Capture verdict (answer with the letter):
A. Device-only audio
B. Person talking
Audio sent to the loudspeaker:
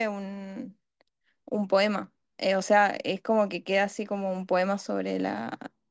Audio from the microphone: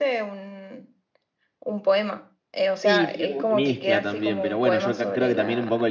B